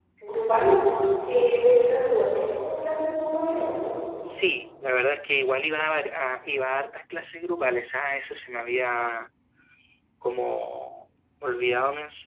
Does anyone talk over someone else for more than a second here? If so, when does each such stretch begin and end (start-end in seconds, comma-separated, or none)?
none